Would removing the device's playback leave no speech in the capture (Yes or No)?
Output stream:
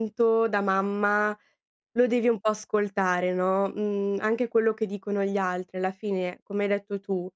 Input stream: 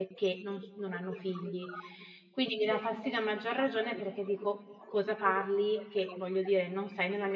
No